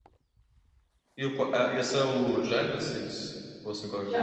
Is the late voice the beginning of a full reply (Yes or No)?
Yes